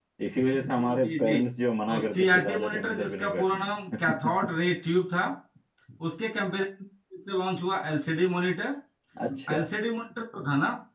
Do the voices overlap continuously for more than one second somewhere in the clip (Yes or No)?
Yes